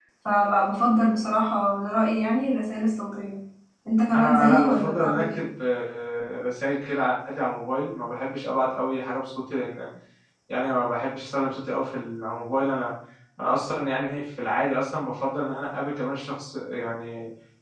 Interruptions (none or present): present